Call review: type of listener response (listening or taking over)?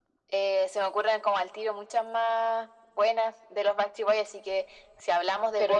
listening